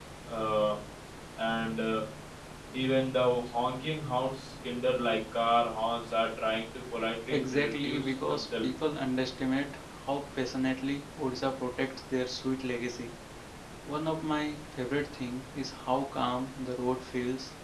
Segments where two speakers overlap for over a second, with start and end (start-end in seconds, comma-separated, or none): 7.3-8.6